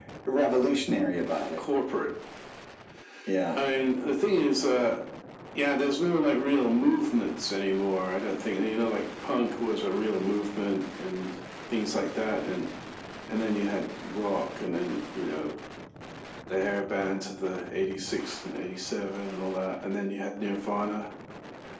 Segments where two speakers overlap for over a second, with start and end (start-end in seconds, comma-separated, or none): none